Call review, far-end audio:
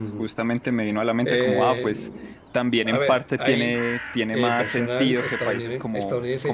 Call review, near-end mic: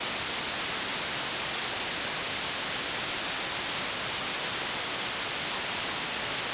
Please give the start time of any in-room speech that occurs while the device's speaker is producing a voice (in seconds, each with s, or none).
none